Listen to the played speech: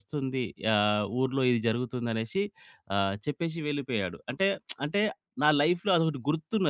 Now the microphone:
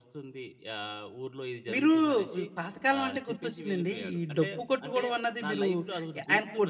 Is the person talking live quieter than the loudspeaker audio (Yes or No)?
No